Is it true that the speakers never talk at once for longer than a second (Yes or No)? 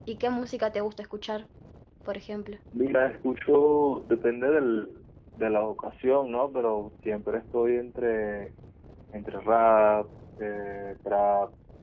Yes